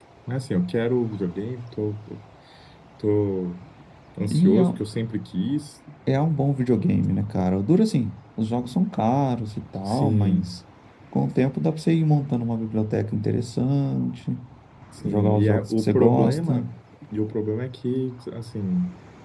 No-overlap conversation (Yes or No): No